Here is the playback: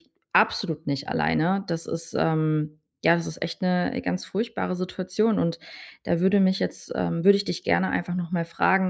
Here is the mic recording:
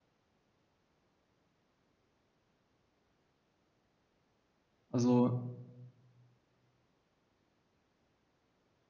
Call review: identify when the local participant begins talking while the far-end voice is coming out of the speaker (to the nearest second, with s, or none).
5 s